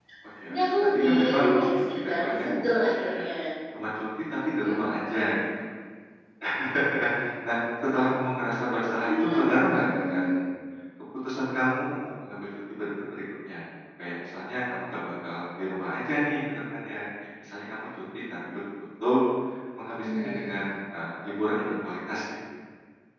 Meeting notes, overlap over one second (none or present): present